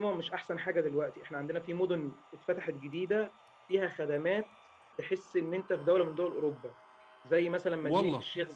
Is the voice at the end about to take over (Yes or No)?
No